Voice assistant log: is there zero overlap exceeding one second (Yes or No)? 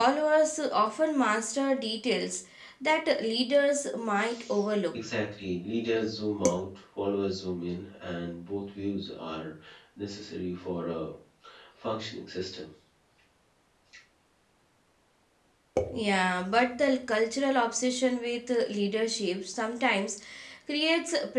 Yes